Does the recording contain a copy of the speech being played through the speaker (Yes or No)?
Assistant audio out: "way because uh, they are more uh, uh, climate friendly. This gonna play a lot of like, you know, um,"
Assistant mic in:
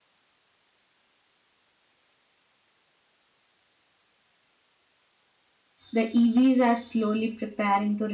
No